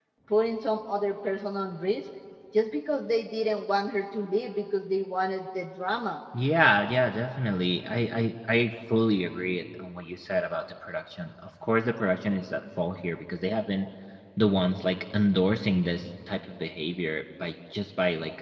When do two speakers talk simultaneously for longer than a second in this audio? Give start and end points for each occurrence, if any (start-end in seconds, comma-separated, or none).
none